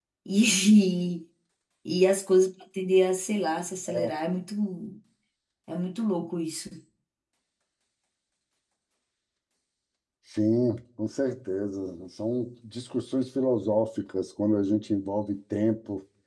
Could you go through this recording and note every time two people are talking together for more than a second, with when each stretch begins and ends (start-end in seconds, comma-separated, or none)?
none